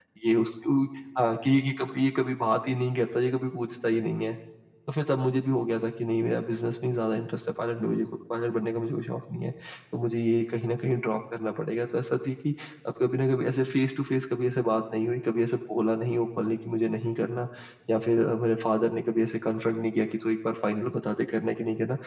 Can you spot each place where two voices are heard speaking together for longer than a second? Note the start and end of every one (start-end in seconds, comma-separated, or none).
none